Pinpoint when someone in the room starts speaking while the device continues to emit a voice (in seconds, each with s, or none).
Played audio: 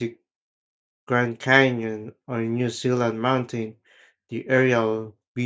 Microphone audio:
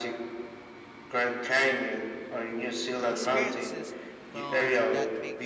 3.1 s